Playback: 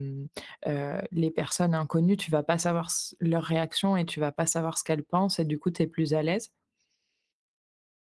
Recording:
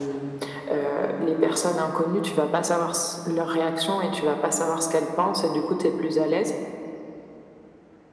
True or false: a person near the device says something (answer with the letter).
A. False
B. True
A